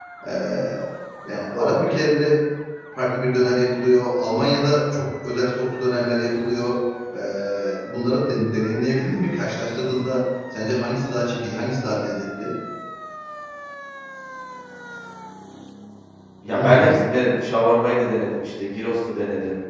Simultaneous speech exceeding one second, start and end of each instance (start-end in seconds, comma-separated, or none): none